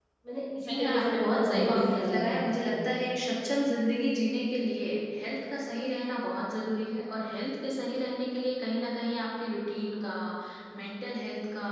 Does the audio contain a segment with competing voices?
Yes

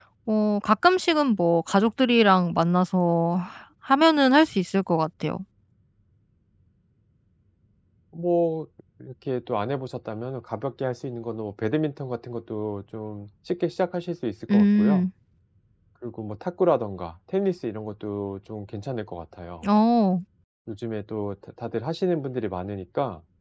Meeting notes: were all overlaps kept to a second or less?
Yes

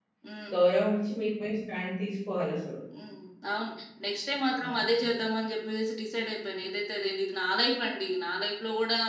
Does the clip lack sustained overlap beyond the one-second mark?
Yes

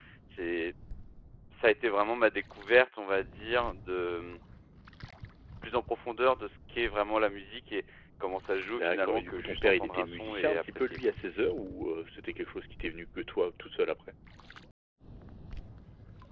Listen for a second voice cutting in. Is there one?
Yes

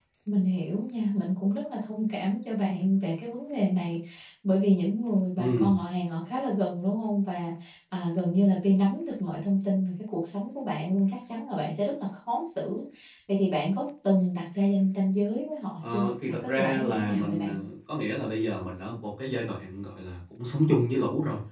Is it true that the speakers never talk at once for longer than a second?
No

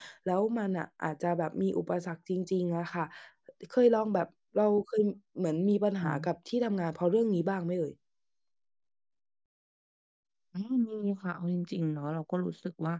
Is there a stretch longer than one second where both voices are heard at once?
No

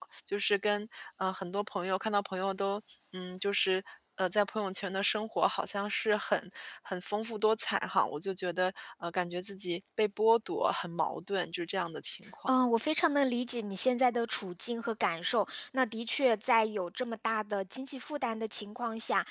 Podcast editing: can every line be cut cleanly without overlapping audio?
Yes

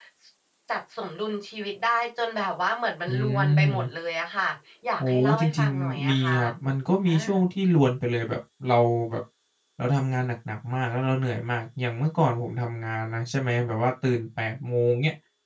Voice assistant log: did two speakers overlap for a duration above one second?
Yes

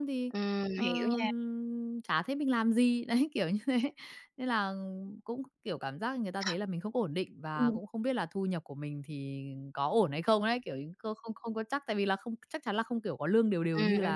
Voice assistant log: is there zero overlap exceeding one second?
Yes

